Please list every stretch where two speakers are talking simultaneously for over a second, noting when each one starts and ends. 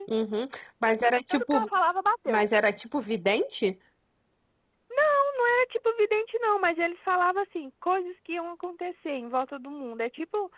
none

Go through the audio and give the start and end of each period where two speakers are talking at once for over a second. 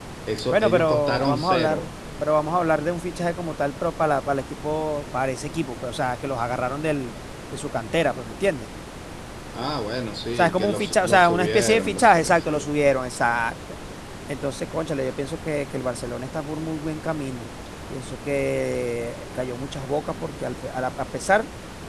0.5-1.9, 10.3-12.7

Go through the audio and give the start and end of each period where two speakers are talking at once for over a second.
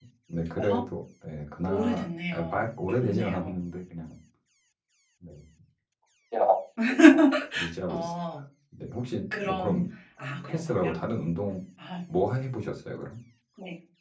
1.7-3.5

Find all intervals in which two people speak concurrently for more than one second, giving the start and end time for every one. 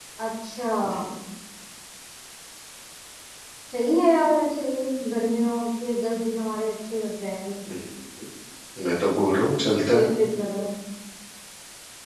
none

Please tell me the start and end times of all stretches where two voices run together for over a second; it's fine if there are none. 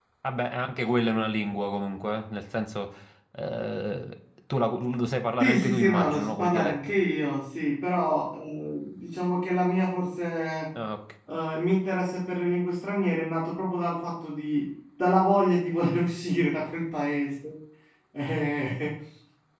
5.4-6.9

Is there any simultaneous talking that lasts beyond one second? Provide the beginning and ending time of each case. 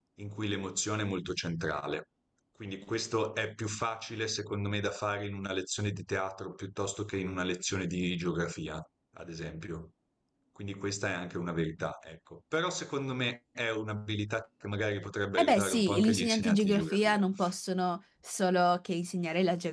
15.4-17.2

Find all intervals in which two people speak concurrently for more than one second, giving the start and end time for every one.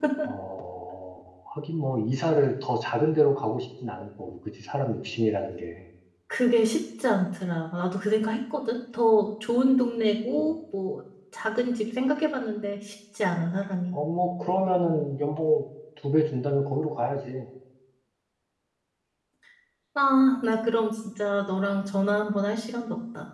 none

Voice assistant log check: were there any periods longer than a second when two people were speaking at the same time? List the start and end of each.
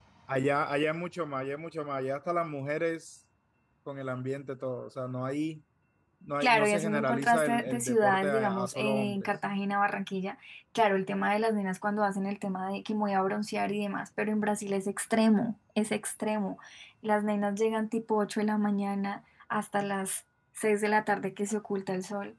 6.4-9.3

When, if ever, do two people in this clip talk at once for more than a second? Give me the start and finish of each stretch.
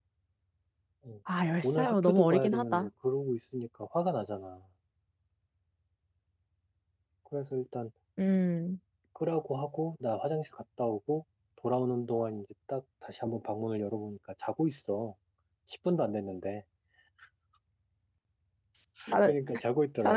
1.6-2.9

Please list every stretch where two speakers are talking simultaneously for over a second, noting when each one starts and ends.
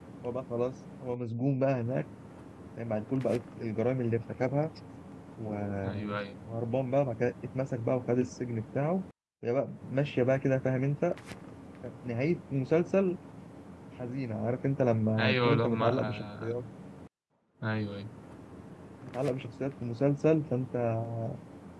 15.2-16.6

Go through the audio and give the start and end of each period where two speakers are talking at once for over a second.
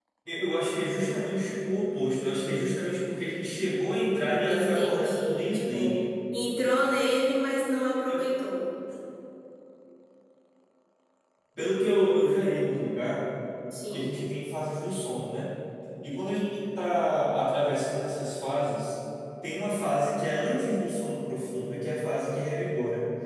4.5-6.0

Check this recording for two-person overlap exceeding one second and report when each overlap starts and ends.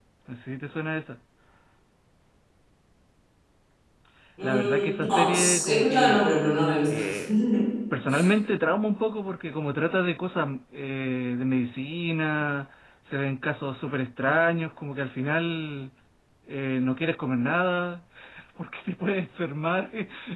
4.4-6.3

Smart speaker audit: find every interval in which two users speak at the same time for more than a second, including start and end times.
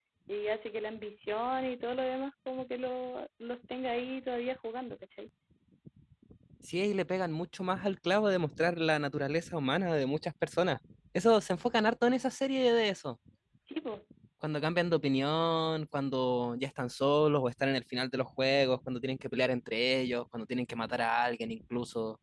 none

